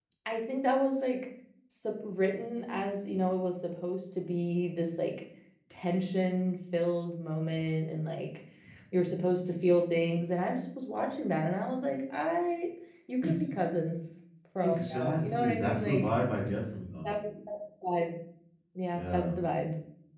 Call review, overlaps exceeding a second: present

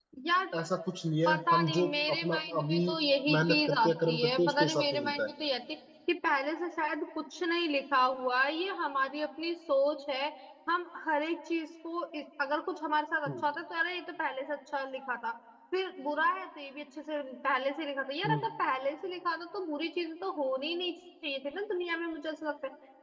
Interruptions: present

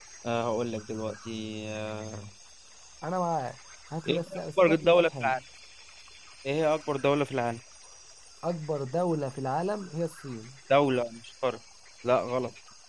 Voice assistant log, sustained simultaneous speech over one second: present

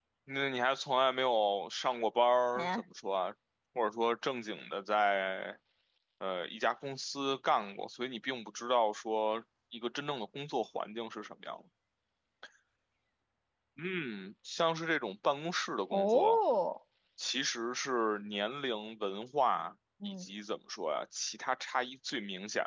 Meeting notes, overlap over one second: none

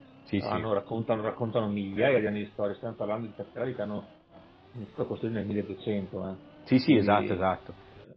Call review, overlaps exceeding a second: none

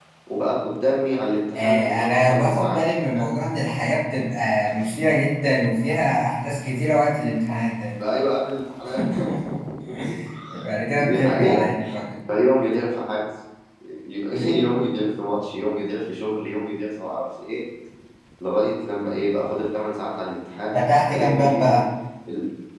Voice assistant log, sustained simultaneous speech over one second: present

